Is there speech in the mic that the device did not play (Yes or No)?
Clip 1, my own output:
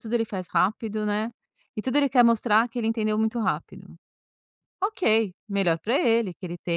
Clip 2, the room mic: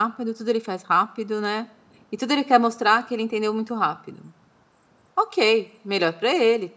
No